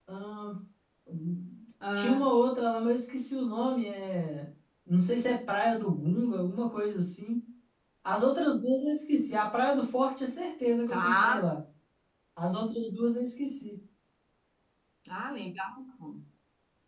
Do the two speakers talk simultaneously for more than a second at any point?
No

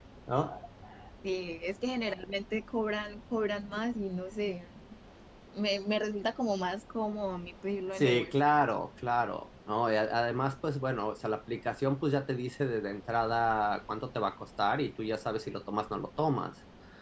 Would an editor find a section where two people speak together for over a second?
No

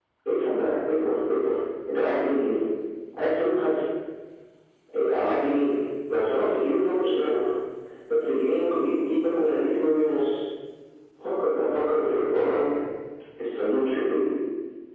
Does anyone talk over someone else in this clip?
No

